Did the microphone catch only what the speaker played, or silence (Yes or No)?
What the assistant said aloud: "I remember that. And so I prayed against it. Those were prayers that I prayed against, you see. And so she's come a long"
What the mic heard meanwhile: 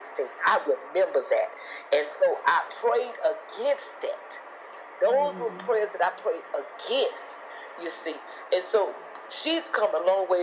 No